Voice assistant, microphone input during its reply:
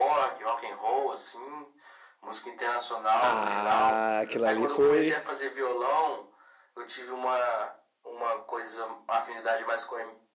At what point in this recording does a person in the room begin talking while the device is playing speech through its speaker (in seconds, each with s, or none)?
3.2 s